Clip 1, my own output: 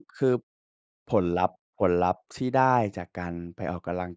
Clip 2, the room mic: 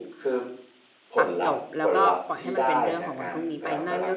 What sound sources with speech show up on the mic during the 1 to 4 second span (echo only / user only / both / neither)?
both